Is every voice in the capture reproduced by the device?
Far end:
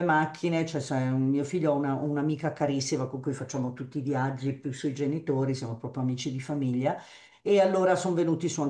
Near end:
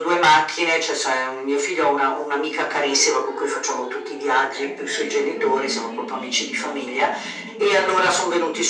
No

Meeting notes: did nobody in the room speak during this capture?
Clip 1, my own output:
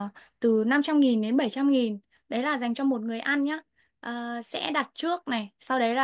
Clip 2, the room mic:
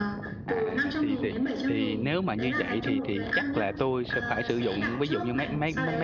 No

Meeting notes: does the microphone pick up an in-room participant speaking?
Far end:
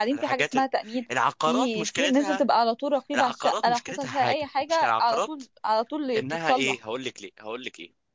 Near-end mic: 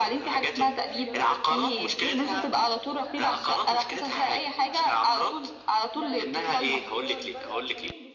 Yes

